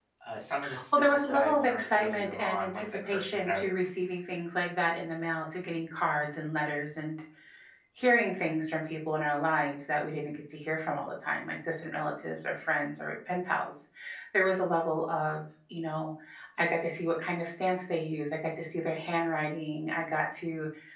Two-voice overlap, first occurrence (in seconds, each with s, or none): 0.9 s